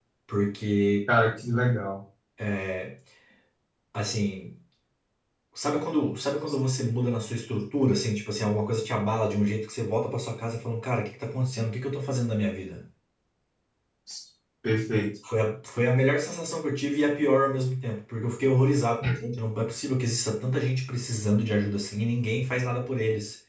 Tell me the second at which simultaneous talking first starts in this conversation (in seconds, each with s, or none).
none